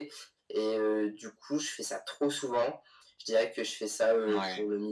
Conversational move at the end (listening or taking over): listening